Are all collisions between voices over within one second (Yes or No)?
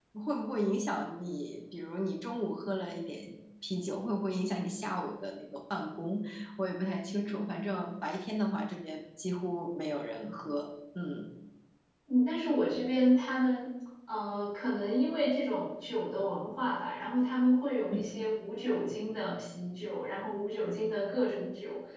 Yes